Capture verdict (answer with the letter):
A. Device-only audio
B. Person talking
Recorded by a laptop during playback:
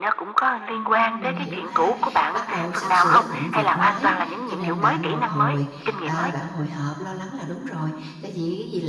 B